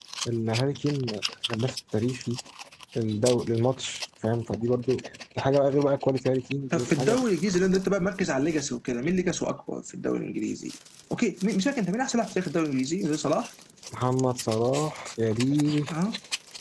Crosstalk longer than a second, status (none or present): none